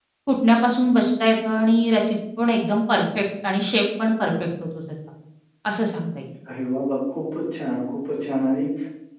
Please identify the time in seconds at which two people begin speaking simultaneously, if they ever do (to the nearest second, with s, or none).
none